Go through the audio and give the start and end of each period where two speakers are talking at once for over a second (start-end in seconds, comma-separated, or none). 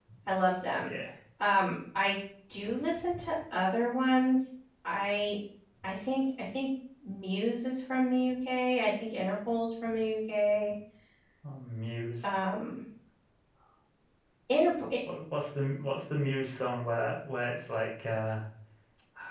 none